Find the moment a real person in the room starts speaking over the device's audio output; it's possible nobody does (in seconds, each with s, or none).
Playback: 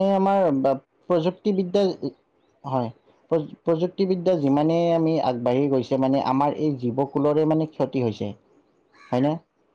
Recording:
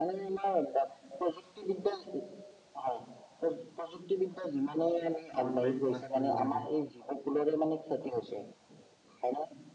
5.4 s